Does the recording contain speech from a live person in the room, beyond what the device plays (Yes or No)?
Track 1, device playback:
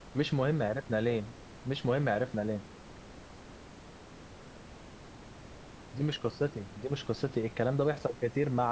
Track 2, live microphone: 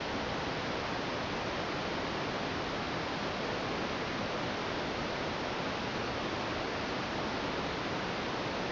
No